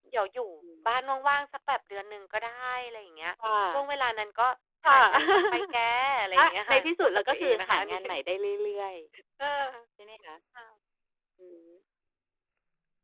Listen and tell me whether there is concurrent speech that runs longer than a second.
Yes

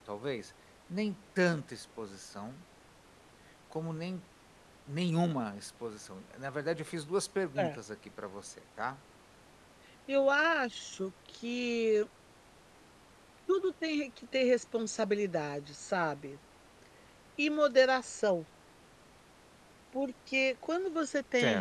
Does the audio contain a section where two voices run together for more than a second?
No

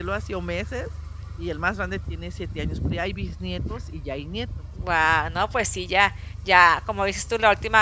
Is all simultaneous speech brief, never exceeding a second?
Yes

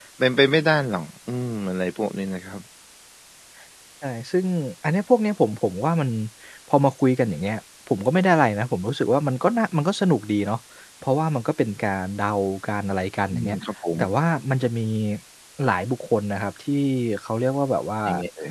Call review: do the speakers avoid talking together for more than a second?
Yes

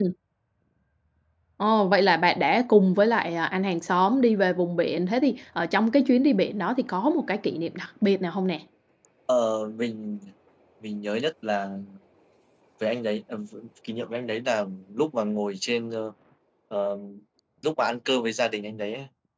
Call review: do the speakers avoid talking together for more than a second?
Yes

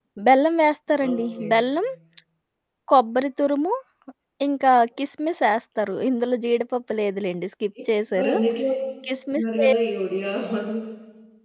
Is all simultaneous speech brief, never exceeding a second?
Yes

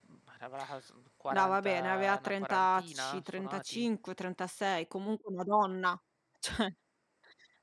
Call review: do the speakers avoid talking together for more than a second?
No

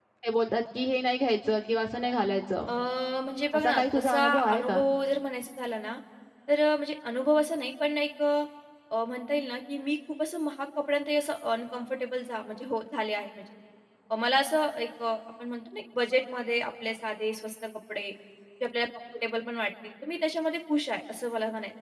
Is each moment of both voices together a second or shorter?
No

